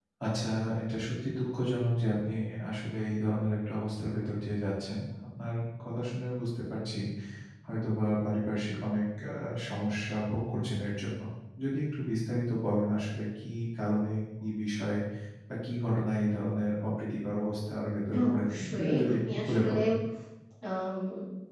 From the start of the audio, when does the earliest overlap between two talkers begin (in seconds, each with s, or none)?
18.1 s